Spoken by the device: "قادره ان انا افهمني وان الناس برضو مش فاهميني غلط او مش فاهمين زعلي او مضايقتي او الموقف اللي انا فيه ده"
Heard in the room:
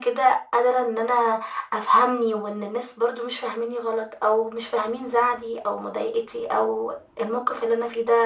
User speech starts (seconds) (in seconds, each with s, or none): none